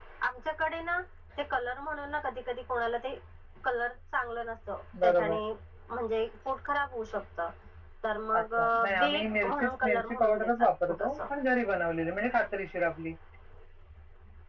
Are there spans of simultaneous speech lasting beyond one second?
Yes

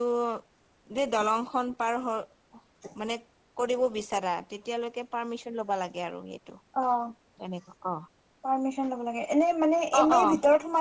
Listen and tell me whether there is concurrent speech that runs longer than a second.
No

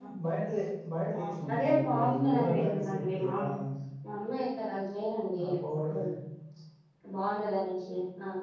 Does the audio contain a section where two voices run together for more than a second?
Yes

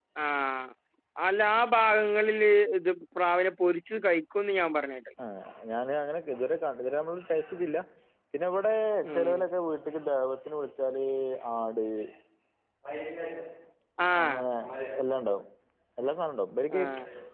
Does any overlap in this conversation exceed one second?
No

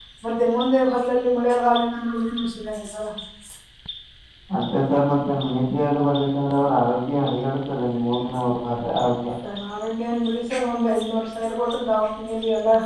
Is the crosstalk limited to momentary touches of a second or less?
Yes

